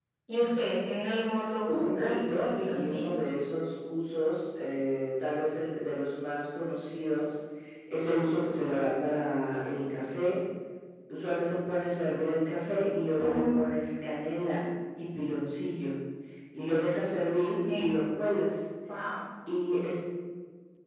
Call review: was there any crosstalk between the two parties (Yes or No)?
Yes